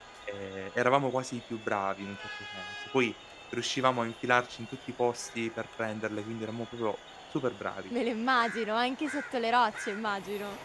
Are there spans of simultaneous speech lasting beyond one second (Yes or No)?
No